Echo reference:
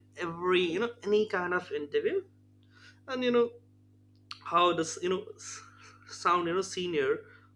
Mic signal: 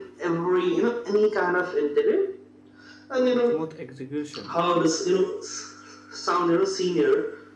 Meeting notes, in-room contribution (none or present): present